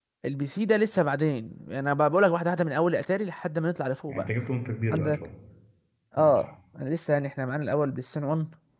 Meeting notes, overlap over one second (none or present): none